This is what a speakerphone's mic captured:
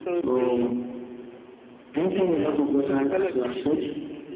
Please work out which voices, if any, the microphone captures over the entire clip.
echo only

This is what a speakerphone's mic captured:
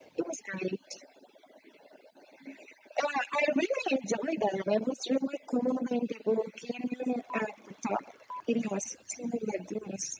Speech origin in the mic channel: echo only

